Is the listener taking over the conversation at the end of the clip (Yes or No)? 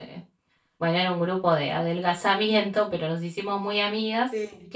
No